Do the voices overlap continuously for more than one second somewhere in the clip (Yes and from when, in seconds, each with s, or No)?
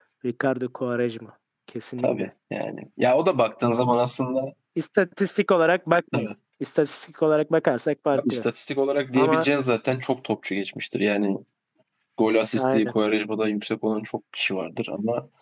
No